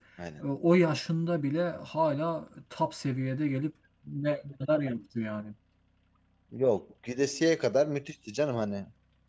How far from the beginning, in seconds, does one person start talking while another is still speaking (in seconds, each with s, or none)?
none